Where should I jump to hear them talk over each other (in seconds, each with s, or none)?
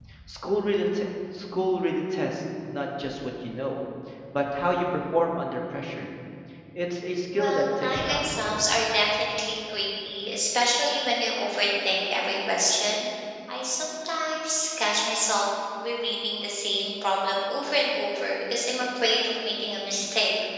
7.3 s